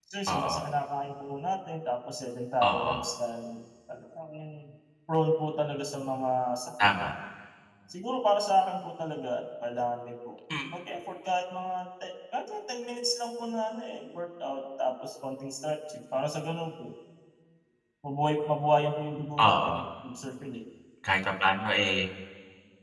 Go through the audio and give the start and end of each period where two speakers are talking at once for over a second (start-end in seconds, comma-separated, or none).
none